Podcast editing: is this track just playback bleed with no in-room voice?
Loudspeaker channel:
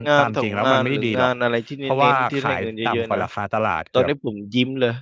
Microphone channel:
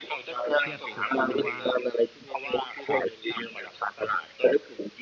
No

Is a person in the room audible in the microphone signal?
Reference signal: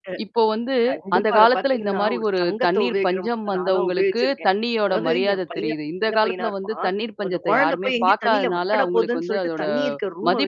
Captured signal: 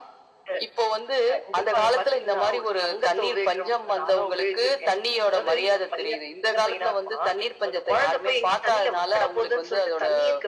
No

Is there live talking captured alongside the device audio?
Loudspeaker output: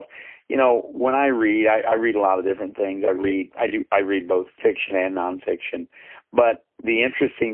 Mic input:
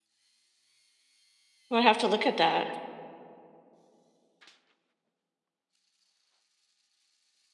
Yes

